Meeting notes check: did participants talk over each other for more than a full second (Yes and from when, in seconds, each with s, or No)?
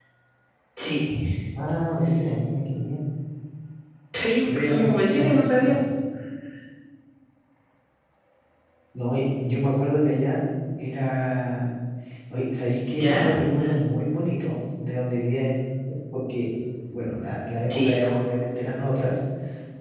Yes, from 4.4 s